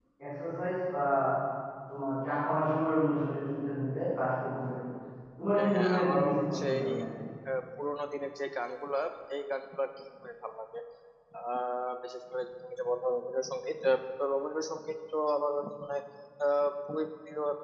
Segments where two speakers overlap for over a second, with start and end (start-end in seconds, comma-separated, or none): 5.6-6.9